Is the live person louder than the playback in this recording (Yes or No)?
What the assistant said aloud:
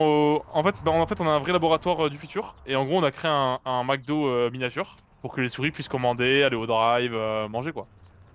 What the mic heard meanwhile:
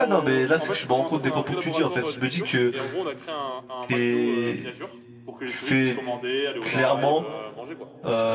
Yes